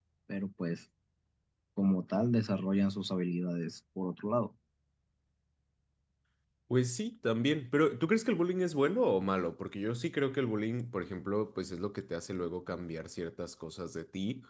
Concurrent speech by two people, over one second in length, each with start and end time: none

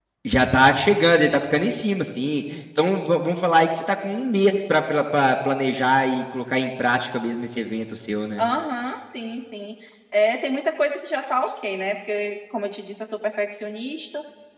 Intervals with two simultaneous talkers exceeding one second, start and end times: none

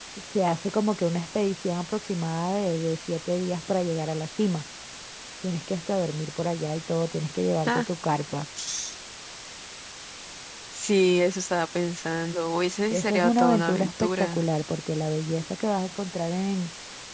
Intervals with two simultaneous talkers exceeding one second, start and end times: 12.9-14.4

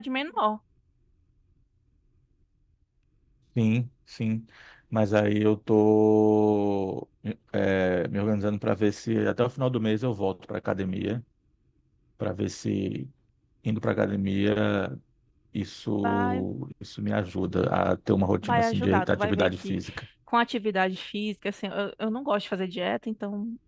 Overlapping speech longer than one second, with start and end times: 18.4-19.8

